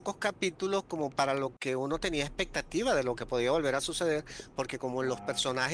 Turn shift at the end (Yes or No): No